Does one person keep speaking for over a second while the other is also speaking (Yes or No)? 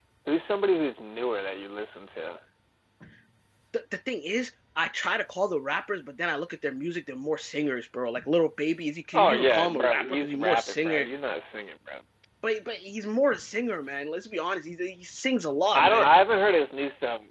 Yes